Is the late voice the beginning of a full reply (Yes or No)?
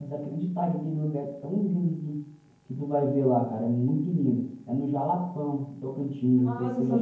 Yes